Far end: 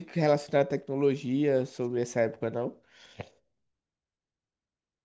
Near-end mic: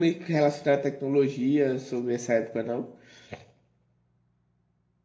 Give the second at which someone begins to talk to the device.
none

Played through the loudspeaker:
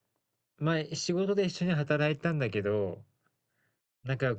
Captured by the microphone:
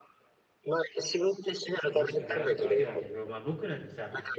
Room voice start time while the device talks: 1.8 s

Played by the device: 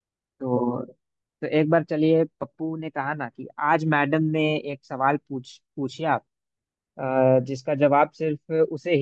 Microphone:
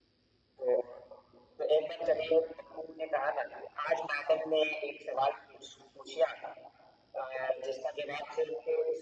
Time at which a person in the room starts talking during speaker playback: none

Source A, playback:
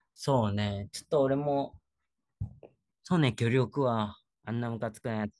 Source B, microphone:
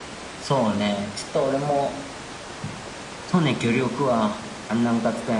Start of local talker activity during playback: none

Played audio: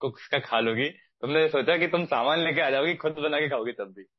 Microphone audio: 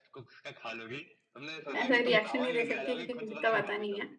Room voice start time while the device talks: 1.8 s

